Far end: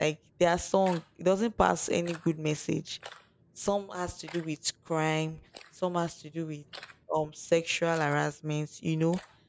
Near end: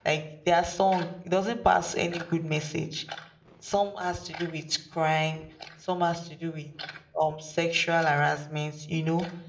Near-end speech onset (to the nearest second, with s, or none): none